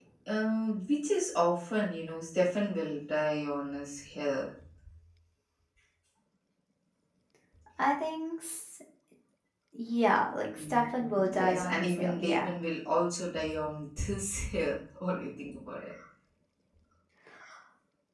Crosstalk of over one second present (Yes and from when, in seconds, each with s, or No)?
Yes, from 10.5 s